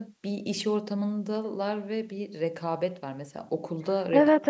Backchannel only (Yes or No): Yes